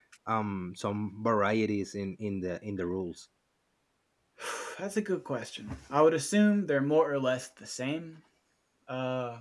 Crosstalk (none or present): none